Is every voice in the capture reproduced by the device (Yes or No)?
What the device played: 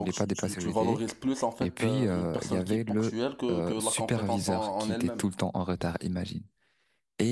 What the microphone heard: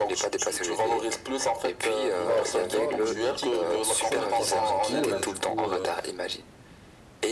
No